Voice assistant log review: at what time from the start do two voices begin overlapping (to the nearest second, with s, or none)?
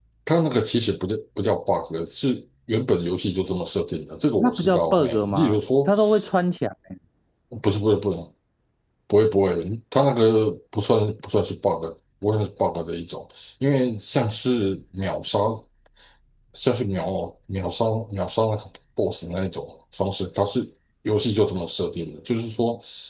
4 s